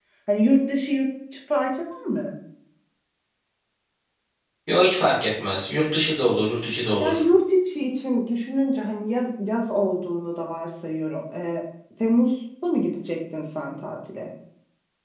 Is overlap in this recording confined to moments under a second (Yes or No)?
Yes